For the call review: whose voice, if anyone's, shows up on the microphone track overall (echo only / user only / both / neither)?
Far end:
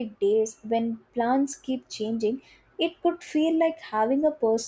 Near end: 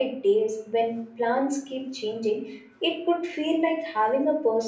echo only